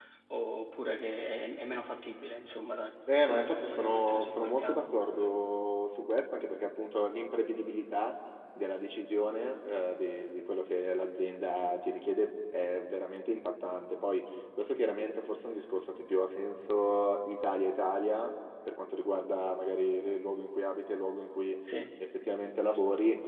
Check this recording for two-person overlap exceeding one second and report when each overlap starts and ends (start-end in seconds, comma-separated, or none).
3.2-4.8